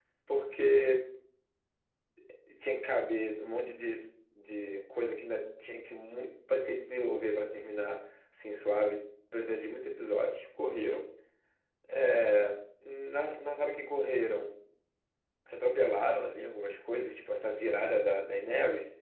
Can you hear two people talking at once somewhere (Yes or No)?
No